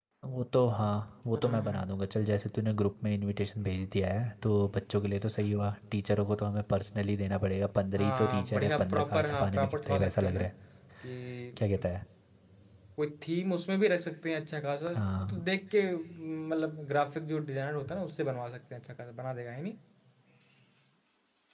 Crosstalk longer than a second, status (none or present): present